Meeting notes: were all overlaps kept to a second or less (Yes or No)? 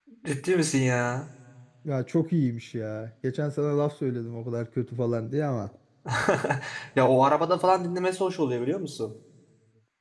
Yes